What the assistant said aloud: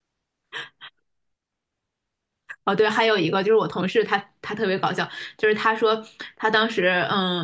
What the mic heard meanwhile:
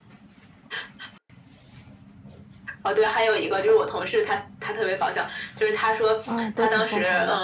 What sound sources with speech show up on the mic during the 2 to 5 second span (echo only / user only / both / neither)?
echo only